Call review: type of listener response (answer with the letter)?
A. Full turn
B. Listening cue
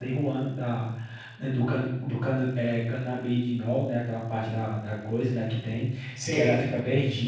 B